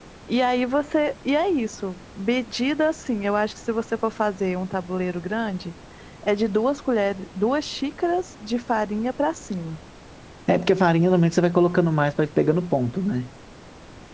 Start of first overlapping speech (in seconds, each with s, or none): none